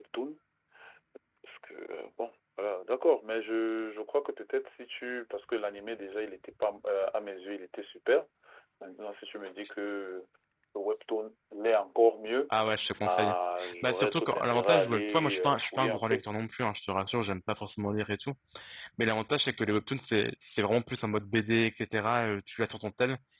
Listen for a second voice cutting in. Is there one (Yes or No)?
Yes